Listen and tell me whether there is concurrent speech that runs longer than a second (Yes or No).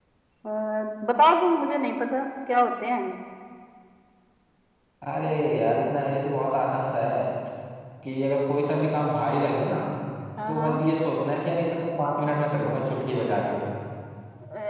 No